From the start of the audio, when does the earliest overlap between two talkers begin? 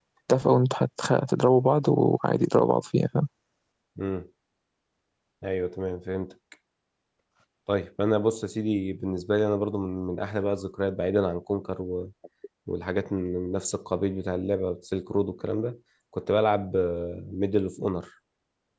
none

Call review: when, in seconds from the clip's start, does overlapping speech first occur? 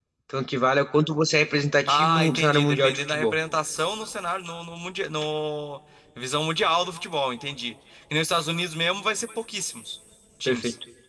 1.9 s

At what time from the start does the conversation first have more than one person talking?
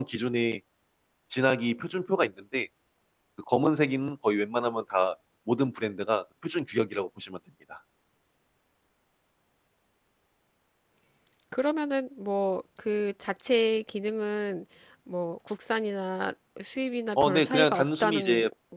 17.2 s

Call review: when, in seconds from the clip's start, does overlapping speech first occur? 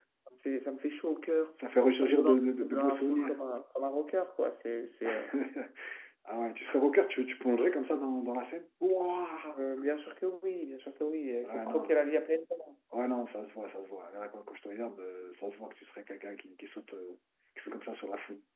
2.0 s

